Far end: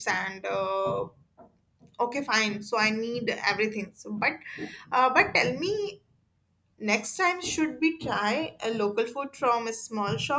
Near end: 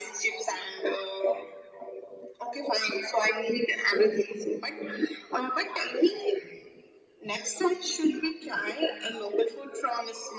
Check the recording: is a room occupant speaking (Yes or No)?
No